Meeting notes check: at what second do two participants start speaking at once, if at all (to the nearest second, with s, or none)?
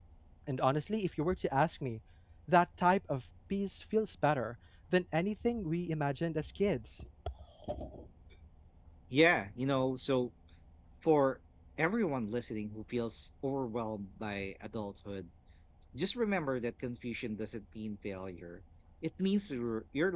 none